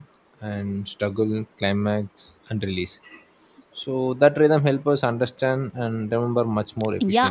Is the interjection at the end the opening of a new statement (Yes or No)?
Yes